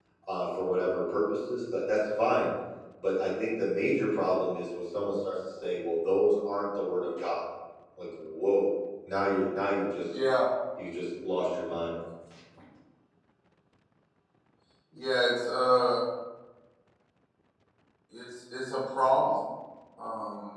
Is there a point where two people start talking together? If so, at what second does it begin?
none

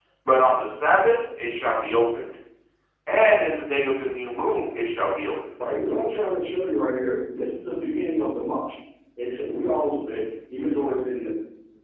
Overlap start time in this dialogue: none

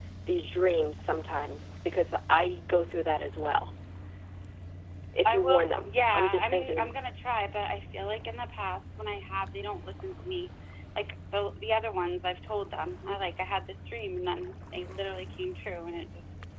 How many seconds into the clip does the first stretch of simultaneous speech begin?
5.2 s

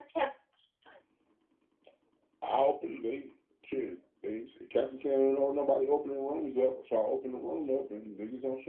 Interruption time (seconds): none

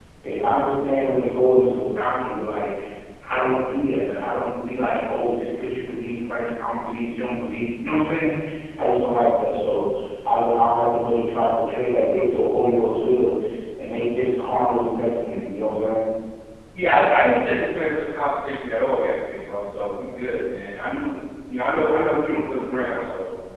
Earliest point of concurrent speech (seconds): none

